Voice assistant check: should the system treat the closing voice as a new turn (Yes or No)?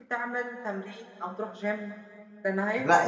Yes